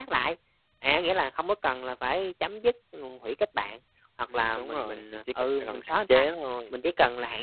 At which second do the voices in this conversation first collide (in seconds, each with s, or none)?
4.3 s